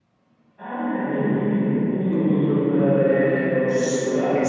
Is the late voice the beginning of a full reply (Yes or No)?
Yes